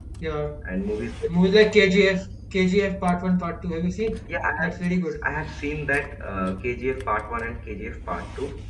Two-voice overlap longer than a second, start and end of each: none

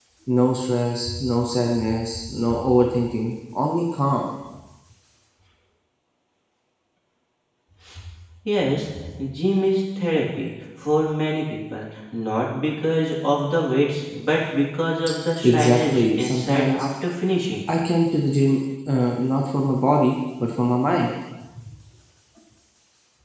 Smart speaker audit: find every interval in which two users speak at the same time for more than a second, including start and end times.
15.4-16.9

